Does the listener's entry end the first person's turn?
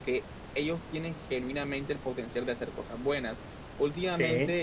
No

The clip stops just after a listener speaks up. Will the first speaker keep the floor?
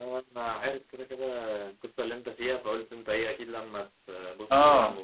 No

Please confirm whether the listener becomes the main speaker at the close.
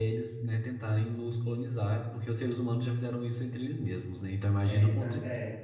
Yes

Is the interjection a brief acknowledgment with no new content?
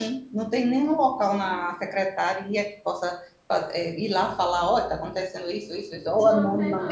No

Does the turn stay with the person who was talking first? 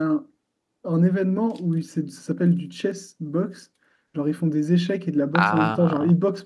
Yes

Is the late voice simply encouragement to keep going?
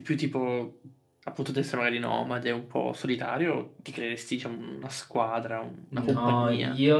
No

